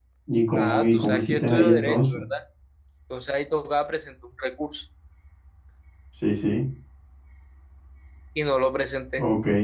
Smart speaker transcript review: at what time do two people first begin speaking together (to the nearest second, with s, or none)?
1 s